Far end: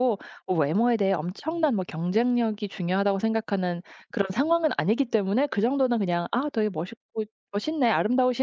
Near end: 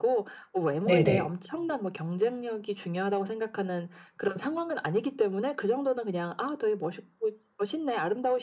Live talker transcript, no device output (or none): 네네.